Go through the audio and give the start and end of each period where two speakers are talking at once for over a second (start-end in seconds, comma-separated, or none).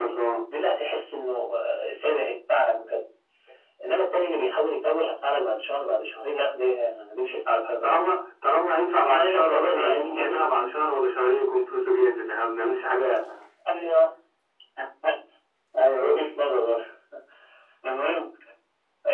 9.1-10.5